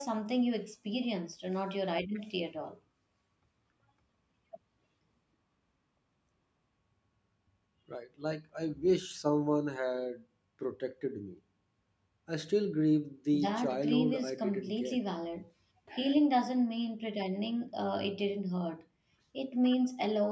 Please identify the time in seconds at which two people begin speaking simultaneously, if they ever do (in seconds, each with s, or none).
13.3 s